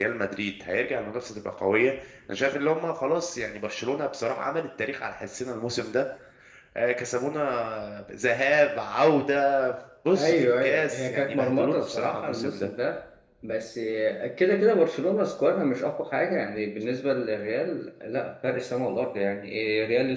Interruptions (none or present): present